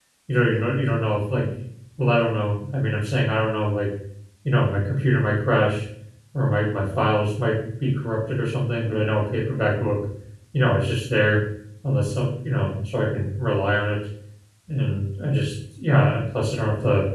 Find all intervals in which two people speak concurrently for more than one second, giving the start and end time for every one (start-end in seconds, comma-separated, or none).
none